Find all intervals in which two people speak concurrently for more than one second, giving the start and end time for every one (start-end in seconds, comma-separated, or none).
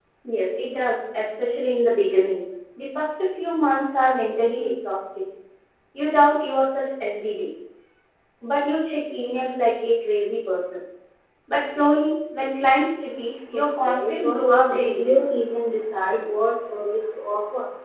13.5-15.2